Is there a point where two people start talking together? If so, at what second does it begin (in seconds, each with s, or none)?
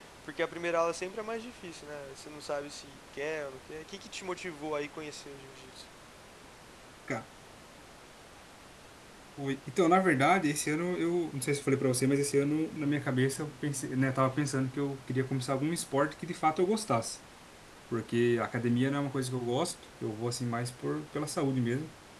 none